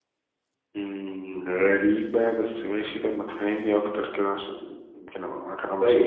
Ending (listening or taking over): taking over